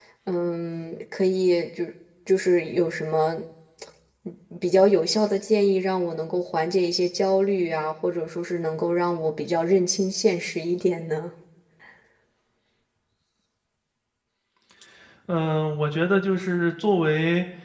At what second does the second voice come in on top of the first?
none

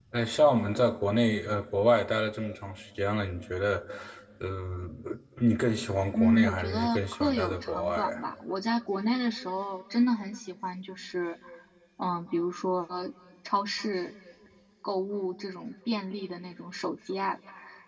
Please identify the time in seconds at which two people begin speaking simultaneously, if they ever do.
6.1 s

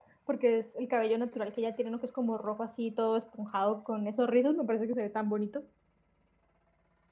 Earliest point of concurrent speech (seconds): none

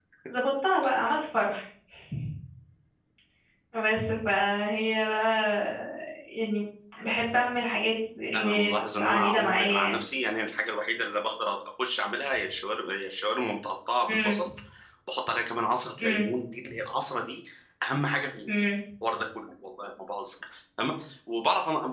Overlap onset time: 8.3 s

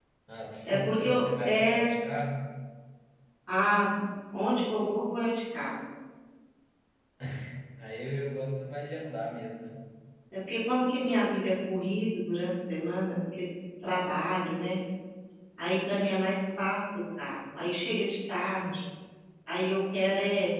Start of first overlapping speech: 0.7 s

